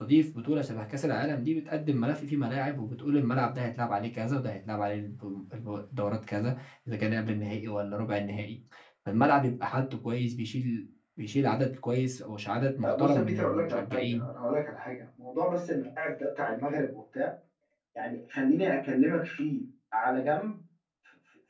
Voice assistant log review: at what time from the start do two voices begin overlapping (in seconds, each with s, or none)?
12.8 s